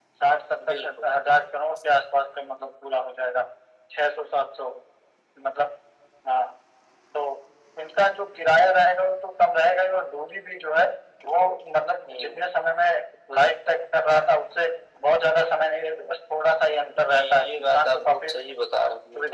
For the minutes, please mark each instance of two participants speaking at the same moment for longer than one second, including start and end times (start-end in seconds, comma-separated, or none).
17.0-18.4